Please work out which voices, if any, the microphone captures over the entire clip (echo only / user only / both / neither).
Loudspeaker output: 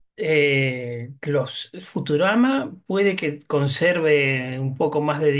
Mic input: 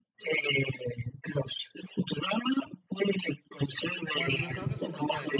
both